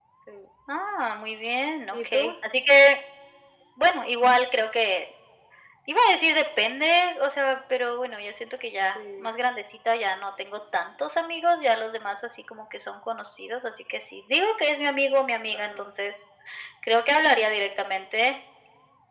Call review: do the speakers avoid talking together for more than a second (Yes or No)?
Yes